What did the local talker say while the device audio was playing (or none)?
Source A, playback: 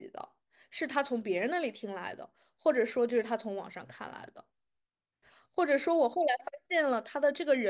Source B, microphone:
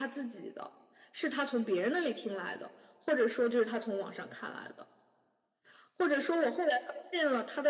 none